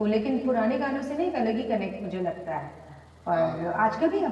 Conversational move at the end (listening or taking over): listening